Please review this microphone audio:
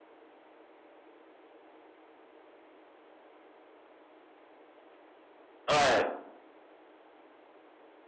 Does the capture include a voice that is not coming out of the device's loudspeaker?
Yes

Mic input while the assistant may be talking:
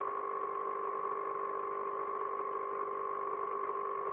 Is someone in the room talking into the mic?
No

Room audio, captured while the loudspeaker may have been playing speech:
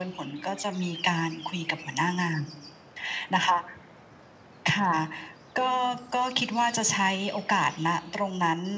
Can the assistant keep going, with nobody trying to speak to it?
Yes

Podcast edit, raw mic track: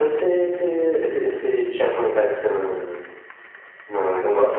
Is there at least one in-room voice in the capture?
No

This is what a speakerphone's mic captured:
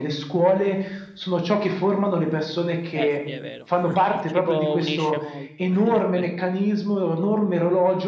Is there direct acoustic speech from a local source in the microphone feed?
Yes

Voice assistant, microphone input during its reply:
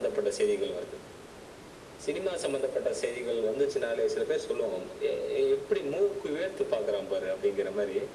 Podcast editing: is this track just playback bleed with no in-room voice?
Yes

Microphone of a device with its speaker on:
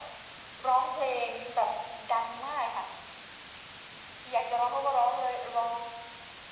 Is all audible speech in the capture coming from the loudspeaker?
Yes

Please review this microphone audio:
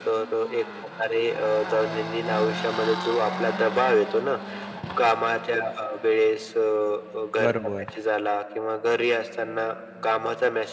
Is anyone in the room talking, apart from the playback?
Yes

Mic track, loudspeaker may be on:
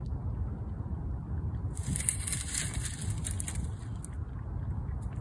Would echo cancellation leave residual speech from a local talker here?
No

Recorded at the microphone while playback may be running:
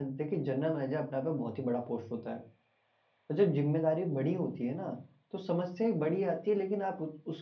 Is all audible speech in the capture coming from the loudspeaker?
No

